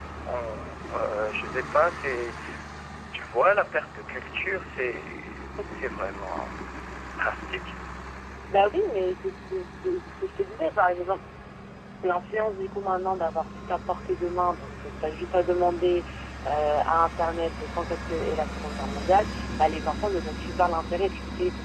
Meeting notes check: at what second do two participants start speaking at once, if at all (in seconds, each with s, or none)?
none